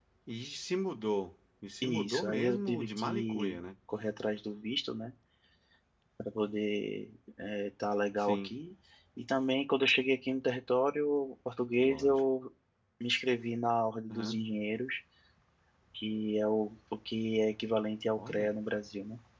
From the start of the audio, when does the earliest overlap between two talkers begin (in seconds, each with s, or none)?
1.8 s